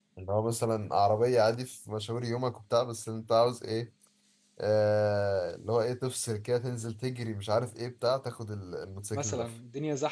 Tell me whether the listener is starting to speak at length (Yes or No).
Yes